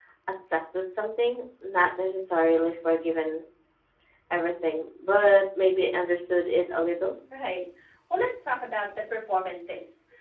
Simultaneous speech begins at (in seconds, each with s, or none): none